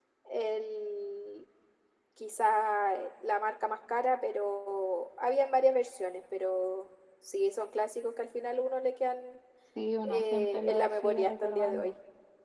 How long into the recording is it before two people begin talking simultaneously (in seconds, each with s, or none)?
10.0 s